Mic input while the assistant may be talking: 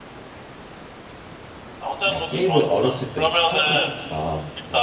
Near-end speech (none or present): present